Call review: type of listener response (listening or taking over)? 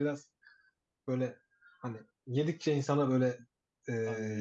listening